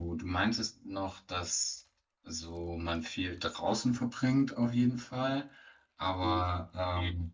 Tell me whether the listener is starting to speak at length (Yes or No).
No